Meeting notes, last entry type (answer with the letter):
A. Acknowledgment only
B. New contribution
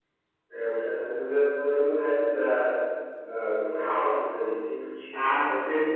B